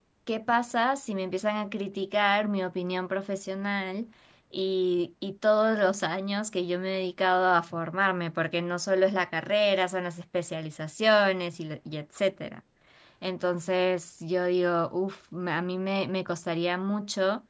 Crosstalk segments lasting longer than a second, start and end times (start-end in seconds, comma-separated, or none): none